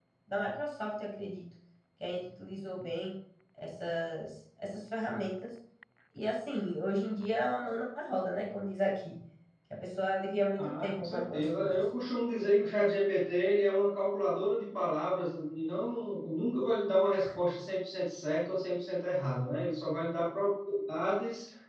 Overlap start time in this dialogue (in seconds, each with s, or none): 10.6 s